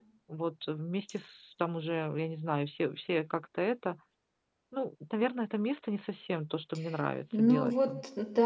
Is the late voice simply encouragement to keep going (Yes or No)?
No